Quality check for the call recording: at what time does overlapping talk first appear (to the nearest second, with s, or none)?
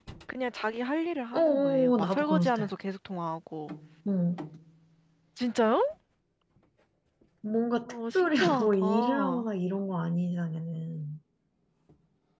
1 s